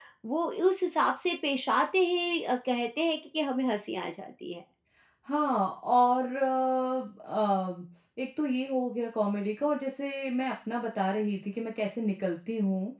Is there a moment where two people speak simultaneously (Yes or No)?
No